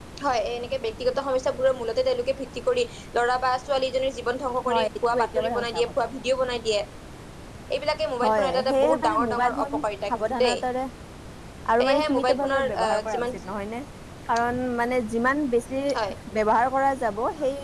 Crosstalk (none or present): present